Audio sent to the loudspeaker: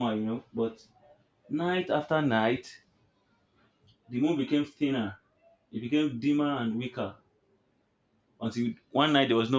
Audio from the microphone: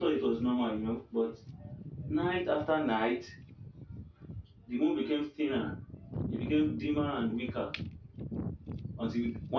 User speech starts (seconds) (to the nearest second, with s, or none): none